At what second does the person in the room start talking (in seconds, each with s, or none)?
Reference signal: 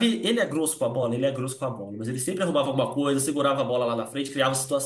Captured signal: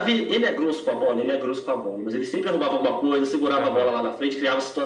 3.6 s